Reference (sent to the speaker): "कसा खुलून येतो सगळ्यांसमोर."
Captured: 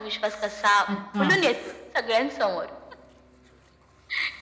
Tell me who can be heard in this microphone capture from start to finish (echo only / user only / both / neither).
both